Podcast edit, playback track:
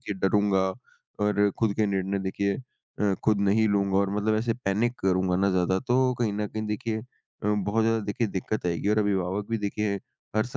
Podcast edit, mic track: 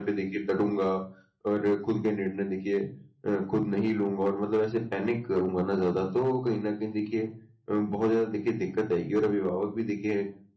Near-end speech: none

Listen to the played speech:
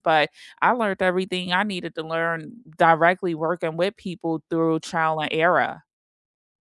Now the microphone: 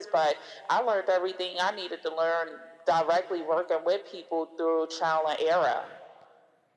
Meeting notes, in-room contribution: none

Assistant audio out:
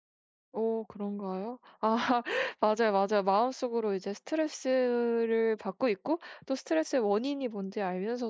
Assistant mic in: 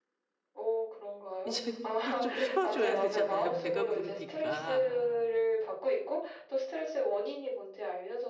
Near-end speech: present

